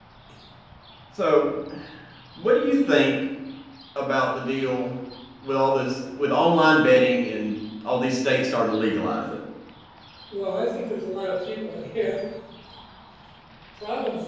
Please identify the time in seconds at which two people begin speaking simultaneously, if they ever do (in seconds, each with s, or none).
none